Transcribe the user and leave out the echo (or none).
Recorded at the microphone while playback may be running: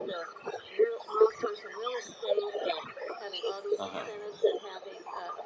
Uh-huh.